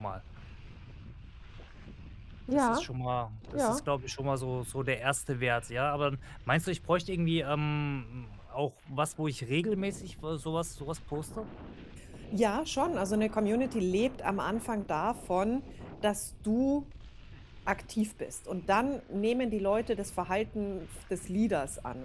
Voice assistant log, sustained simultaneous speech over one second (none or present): none